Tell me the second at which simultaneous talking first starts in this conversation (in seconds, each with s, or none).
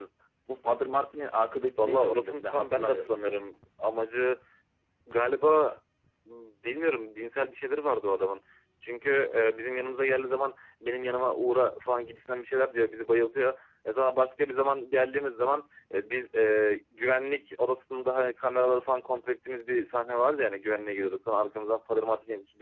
1.8 s